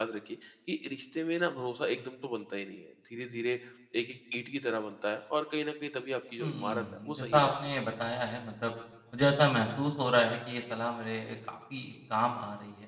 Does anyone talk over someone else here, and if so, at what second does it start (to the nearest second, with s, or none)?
6 s